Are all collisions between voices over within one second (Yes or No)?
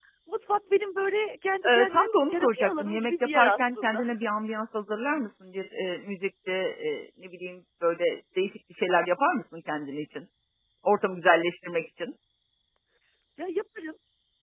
No